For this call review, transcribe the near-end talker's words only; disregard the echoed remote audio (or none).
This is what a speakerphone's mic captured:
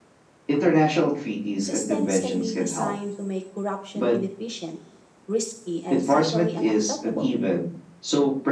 Systems can be designed to make corruption inefficient, risky, and socially unacceptable.